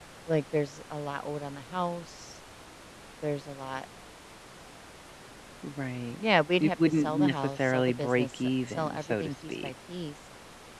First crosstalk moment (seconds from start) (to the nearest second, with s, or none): 7 s